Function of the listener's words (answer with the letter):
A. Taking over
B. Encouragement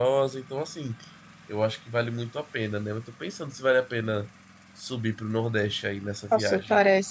A